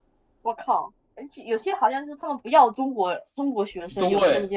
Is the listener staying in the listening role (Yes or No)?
No